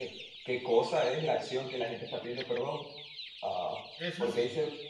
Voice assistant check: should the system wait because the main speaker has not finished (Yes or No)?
Yes